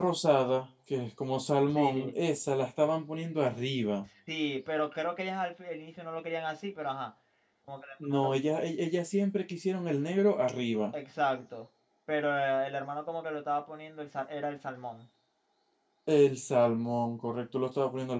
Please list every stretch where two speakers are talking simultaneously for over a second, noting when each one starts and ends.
none

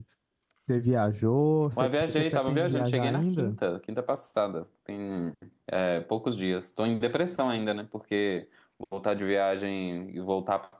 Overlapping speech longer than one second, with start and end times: 1.8-3.6

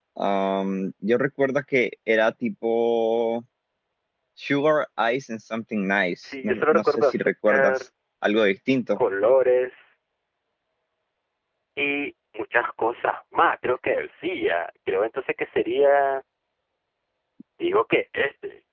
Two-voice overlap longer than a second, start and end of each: 6.4-7.8

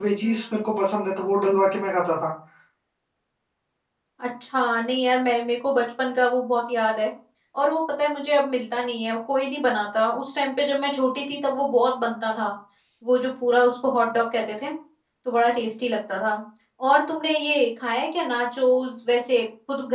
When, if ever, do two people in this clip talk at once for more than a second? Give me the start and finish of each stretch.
none

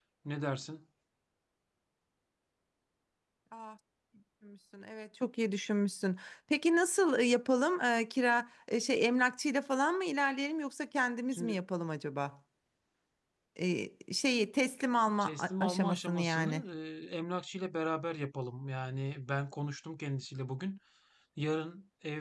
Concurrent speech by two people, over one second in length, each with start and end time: 15.2-16.6

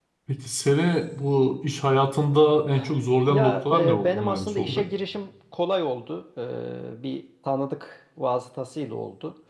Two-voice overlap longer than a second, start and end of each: 3.3-4.8

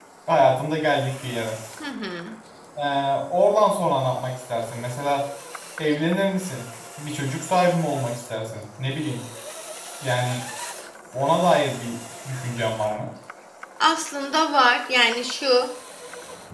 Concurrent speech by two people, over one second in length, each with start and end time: none

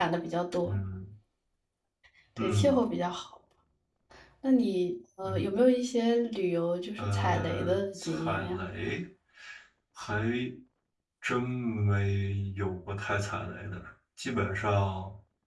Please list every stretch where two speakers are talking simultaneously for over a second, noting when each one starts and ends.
7.0-8.6

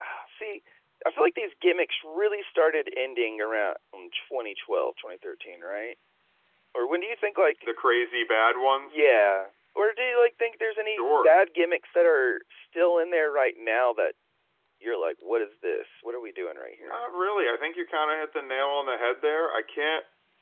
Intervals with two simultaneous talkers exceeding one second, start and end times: none

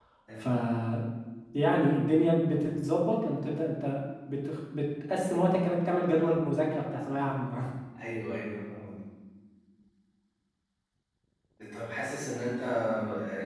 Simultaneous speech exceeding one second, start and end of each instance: none

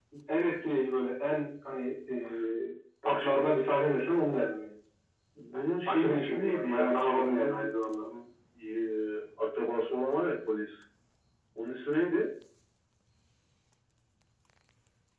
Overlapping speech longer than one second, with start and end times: 5.9-8.0

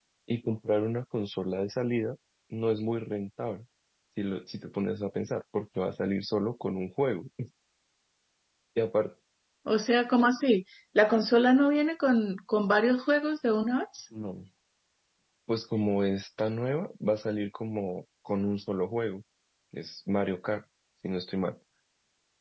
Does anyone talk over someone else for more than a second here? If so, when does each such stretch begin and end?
none

